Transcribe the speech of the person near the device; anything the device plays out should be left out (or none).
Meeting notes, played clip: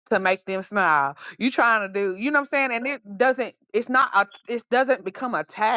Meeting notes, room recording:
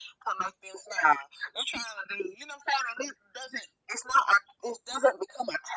none